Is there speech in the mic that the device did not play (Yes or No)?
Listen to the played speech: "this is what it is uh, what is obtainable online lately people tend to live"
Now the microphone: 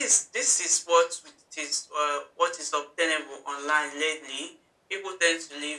No